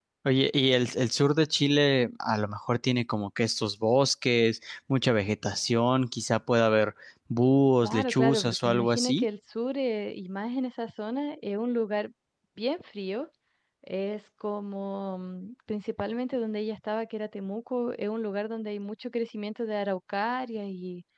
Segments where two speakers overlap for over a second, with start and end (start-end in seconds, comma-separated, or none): 7.8-9.2